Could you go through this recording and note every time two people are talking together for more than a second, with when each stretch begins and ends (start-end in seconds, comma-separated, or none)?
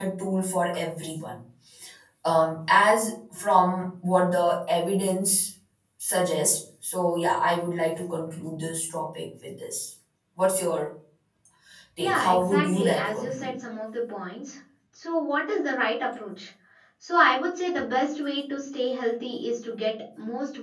12.0-13.5